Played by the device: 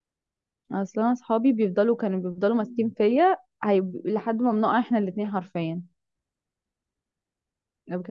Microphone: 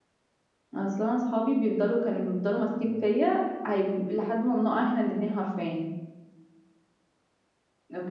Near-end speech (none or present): none